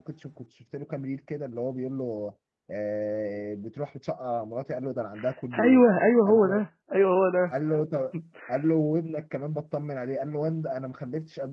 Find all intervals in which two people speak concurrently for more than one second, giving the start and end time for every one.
none

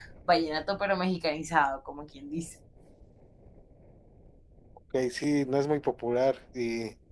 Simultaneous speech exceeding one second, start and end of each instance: none

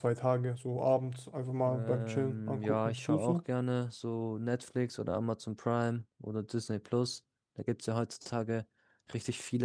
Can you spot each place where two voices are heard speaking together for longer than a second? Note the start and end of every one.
1.6-3.4

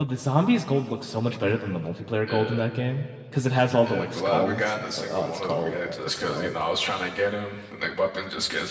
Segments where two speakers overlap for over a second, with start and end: 3.8-6.5

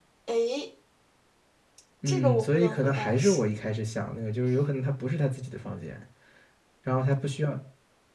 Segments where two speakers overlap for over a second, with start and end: 2.1-3.5

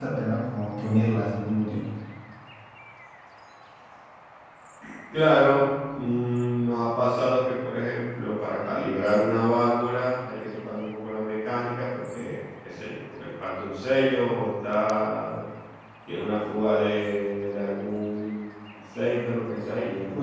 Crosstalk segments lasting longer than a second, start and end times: none

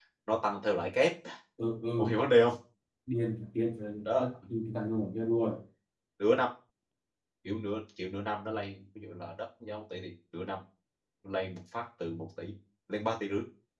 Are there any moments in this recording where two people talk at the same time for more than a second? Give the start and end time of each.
none

